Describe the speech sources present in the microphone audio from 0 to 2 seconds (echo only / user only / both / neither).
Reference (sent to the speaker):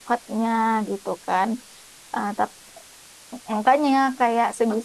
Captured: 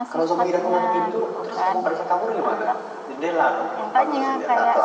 both